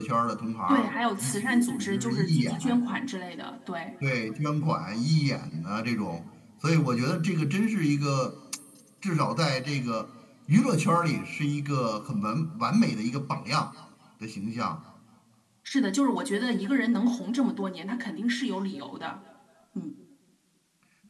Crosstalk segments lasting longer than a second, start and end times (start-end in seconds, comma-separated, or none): 0.7-2.8